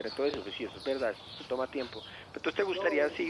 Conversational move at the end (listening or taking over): listening